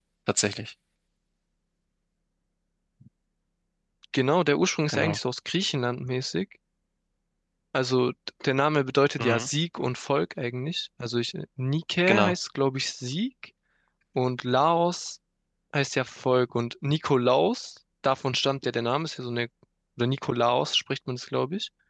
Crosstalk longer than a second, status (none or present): none